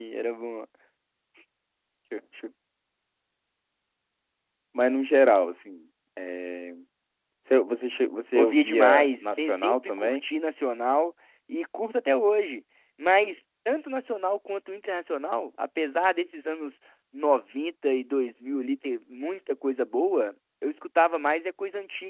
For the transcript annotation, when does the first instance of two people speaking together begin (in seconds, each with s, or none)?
8.3 s